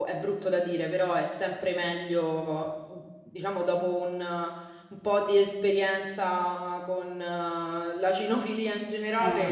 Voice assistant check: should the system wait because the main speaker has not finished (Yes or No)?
Yes